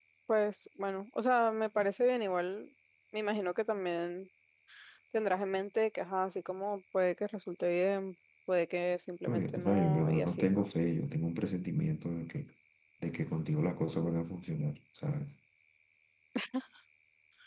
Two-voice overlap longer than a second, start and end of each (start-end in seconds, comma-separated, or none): 9.3-10.7